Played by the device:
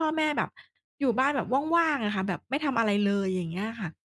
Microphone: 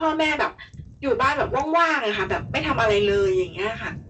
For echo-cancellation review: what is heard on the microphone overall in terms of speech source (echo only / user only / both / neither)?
echo only